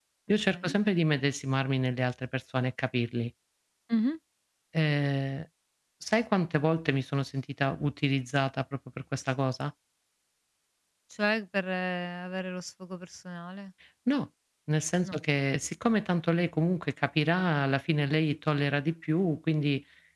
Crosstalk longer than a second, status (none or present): none